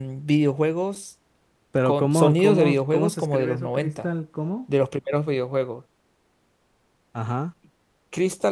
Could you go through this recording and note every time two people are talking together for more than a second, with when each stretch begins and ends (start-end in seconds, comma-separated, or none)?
1.8-4.1